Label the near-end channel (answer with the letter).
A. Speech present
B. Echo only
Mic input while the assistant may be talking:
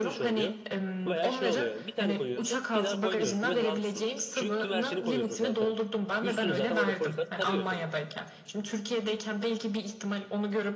A